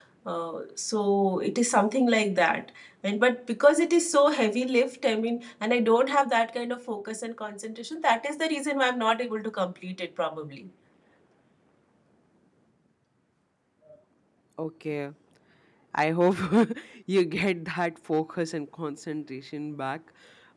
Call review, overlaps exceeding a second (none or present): none